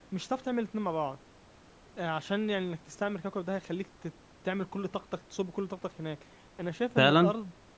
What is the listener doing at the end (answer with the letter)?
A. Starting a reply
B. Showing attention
B